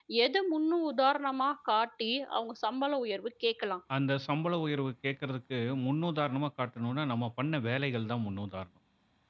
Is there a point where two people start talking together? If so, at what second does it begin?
none

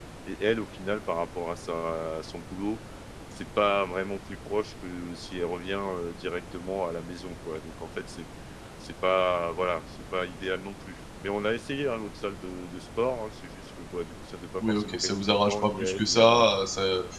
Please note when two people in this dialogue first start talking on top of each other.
14.6 s

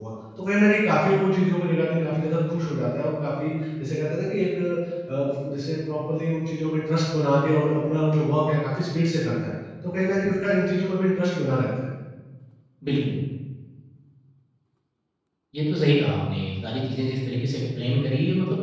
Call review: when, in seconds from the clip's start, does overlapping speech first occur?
none

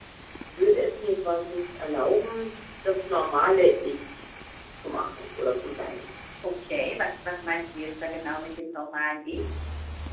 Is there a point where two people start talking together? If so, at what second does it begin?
none

